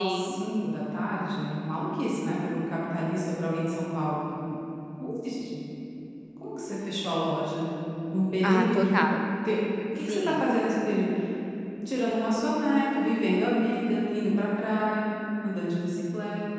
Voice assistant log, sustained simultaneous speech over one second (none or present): none